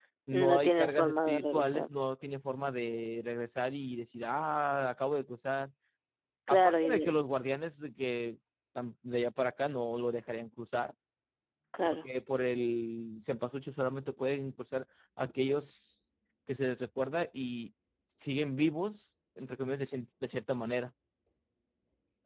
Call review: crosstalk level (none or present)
present